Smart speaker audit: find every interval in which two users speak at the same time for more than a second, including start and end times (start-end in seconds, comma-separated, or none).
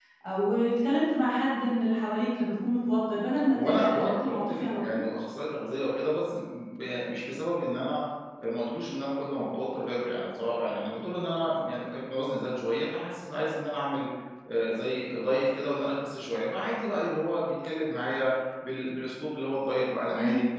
3.6-5.0